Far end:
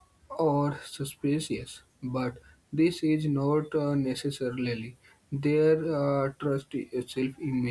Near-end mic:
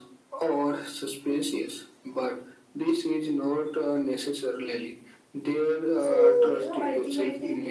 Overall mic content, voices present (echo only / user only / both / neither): both